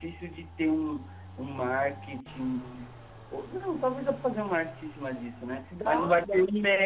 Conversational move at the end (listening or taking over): listening